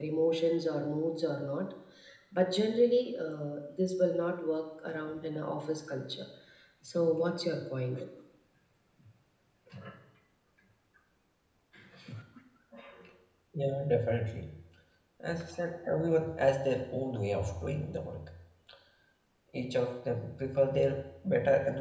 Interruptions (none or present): none